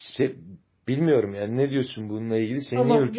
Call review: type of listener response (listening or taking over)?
taking over